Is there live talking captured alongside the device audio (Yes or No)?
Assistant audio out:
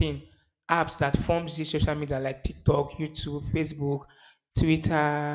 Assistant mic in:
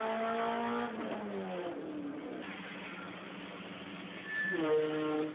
No